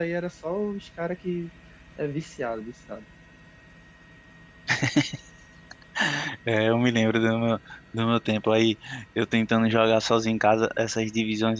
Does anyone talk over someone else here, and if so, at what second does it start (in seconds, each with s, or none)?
none